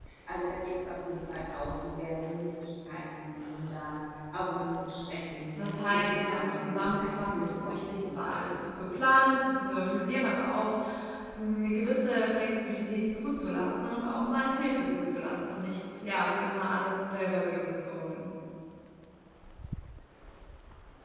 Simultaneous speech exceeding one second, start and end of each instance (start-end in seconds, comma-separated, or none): 5.6-8.5